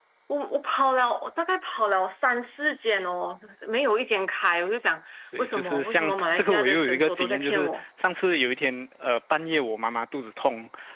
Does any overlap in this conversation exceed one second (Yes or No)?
Yes